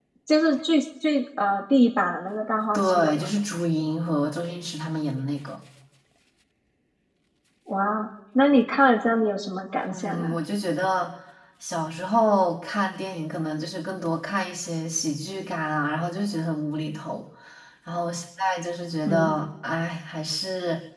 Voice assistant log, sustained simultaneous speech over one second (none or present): none